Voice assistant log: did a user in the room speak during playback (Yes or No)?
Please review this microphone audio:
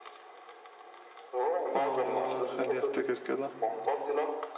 Yes